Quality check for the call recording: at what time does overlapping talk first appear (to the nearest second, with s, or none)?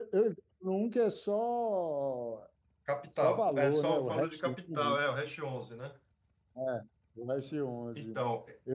3 s